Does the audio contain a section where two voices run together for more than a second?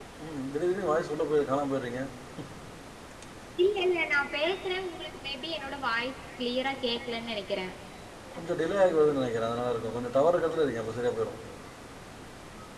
No

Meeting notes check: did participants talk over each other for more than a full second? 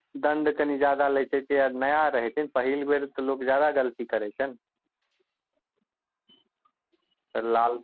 No

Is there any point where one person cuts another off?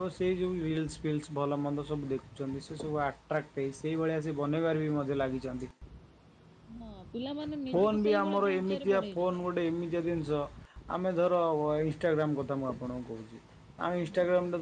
Yes, from 7.7 s

